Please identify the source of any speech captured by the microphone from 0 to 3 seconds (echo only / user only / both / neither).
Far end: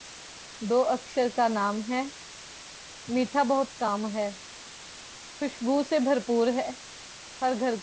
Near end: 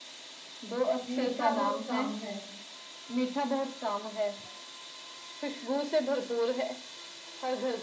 both